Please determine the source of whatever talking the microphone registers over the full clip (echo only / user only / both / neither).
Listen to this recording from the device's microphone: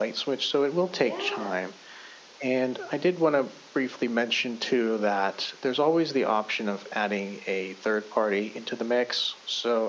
both